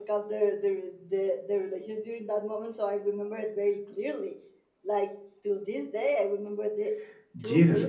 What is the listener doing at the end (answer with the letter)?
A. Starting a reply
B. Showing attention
A